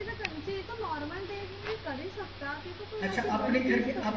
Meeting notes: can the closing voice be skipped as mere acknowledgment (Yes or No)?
No